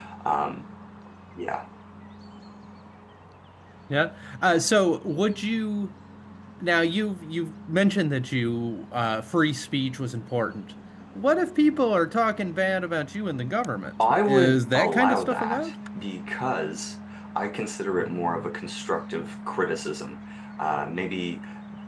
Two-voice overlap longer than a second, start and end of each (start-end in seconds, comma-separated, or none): 14.2-15.7